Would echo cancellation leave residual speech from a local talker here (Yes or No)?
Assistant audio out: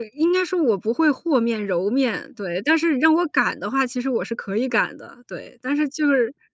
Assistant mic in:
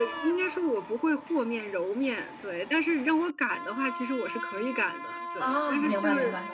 Yes